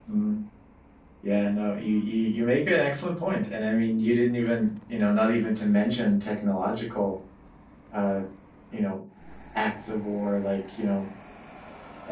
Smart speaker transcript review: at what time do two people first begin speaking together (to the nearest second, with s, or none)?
none